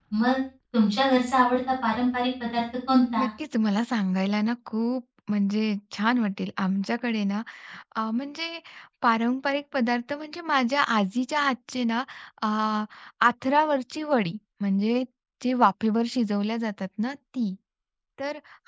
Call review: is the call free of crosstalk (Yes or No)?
Yes